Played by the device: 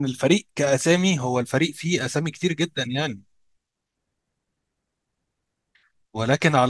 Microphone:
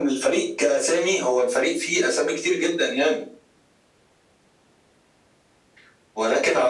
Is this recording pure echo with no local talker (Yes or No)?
Yes